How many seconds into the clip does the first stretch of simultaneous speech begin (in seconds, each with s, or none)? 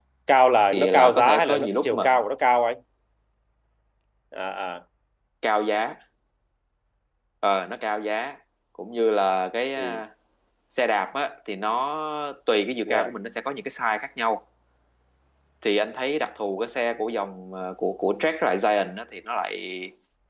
0.7 s